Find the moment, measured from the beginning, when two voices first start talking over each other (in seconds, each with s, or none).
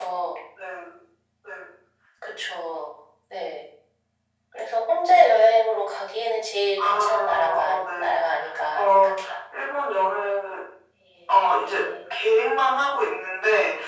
6.8 s